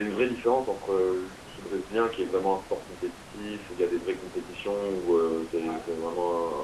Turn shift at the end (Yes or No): No